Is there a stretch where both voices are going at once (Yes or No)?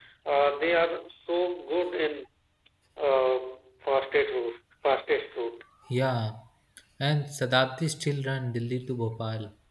No